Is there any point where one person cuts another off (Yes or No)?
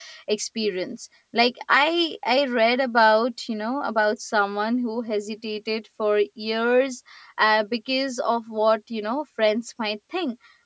No